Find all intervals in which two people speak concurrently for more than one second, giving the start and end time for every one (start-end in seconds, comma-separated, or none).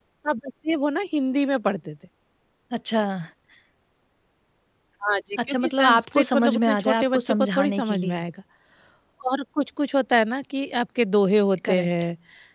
5.5-8.2